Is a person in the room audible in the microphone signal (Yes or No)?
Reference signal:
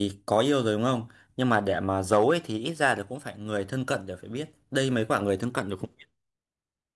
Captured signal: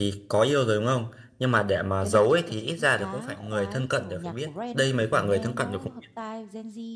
Yes